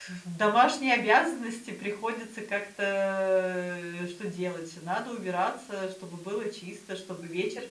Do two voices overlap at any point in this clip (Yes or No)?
No